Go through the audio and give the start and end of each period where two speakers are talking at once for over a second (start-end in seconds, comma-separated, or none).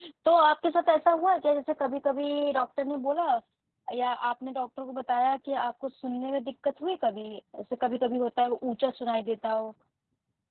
none